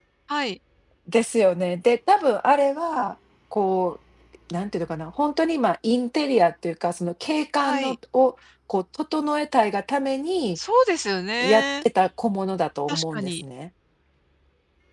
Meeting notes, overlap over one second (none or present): none